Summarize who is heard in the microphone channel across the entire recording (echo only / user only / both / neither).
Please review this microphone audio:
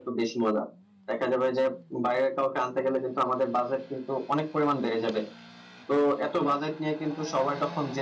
echo only